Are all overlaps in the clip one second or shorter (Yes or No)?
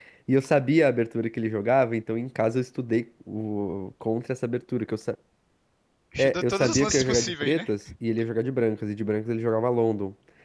No